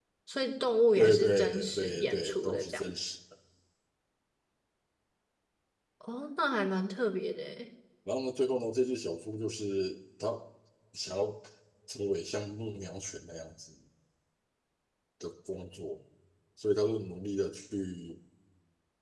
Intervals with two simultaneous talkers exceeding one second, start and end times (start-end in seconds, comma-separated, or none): 0.9-2.8